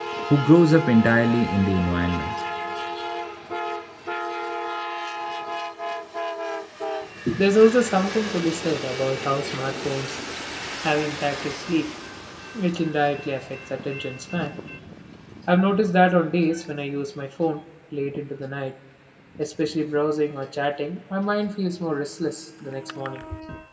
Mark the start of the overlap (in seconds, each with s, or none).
none